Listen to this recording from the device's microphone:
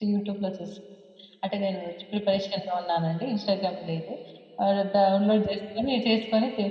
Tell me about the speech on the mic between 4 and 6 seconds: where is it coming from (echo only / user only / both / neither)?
user only